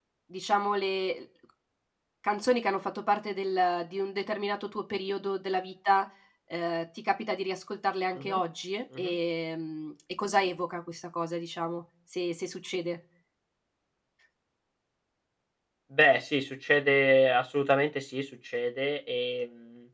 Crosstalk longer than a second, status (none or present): none